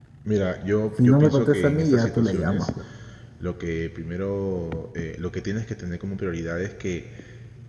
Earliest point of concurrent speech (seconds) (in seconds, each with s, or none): 1.0 s